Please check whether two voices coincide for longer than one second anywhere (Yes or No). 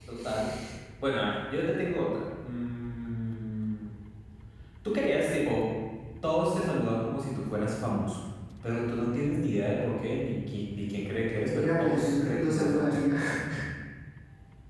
Yes